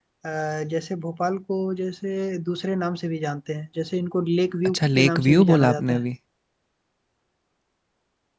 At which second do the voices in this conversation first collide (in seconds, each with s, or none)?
4.7 s